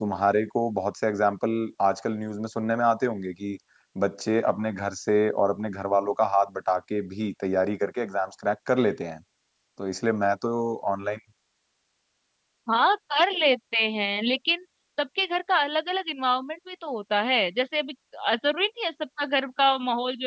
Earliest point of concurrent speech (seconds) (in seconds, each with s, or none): none